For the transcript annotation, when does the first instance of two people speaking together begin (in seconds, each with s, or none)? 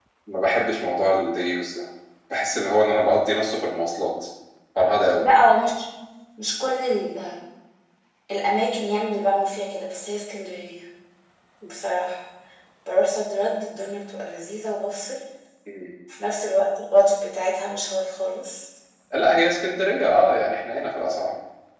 none